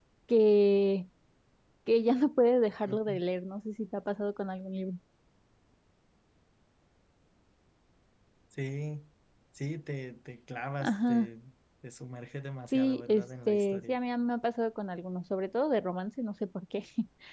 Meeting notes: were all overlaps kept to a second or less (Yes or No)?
No